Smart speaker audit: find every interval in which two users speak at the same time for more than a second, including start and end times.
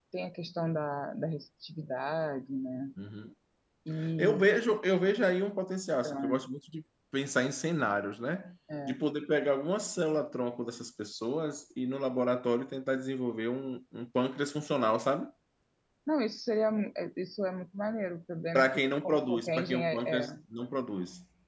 18.5-20.3

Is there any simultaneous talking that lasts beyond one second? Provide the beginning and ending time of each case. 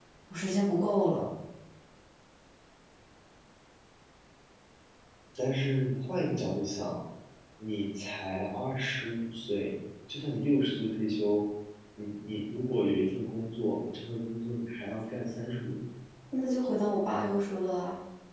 none

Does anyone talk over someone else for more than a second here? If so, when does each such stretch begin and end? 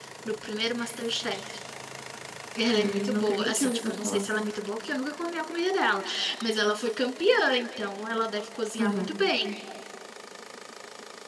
2.8-4.3

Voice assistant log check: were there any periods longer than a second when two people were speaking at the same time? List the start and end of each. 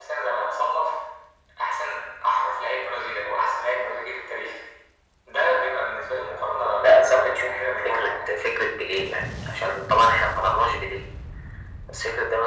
6.7-8.3

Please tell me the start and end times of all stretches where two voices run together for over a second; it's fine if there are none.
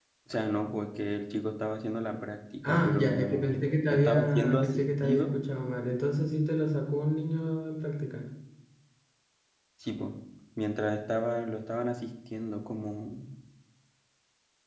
2.6-5.4

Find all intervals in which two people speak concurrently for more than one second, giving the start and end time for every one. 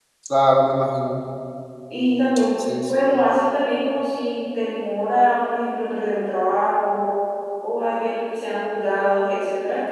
none

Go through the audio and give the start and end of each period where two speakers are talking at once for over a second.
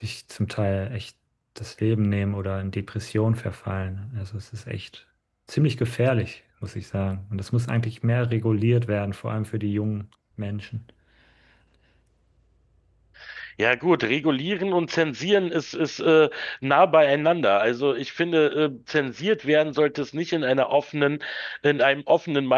none

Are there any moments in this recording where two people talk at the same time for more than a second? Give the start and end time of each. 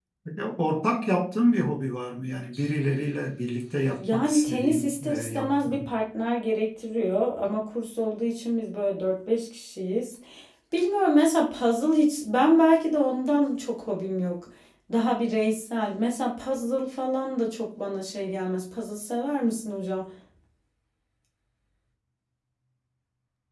4.0-5.9

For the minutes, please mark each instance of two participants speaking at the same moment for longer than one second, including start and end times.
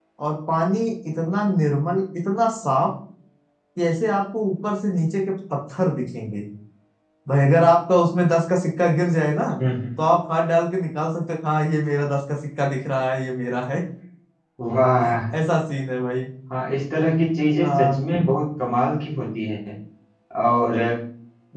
none

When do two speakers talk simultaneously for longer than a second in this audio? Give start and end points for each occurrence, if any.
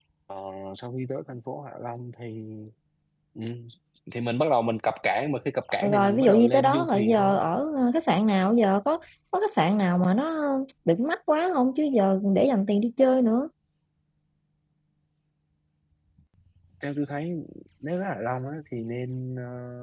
5.8-7.4

